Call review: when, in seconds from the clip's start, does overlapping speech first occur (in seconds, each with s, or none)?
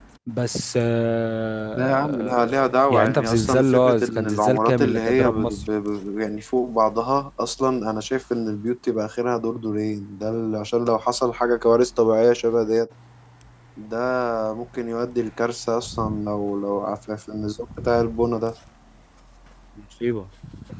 1.8 s